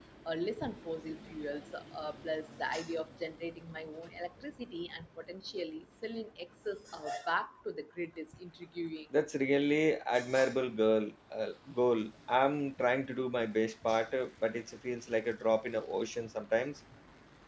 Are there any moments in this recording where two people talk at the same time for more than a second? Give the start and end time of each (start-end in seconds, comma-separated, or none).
none